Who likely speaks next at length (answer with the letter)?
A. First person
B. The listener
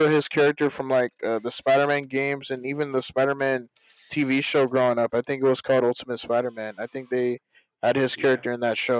A